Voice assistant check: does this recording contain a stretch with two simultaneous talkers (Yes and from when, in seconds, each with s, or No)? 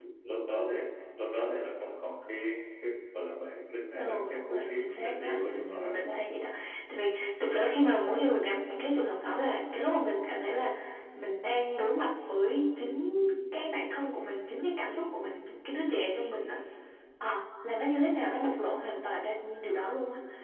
Yes, from 4.0 s